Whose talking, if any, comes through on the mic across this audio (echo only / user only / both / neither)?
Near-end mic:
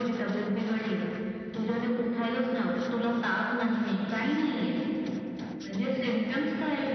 echo only